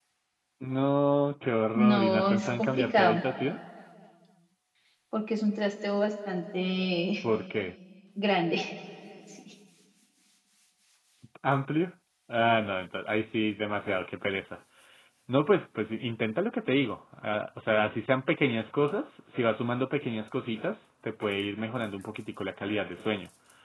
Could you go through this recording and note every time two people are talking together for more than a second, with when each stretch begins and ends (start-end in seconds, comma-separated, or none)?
1.8-3.2